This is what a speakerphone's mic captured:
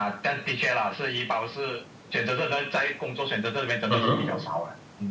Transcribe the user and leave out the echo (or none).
嗯哼